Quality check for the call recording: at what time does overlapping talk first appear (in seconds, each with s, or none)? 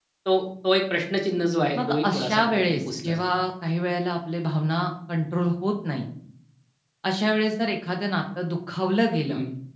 1.7 s